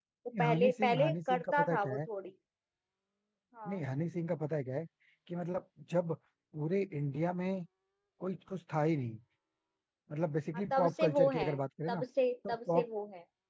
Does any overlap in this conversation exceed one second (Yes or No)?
Yes